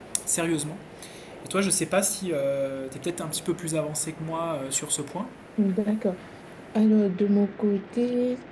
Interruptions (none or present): none